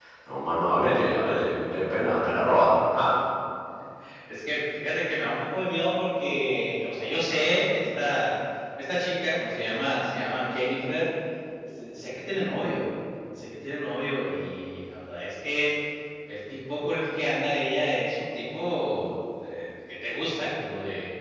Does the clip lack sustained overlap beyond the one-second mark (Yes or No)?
Yes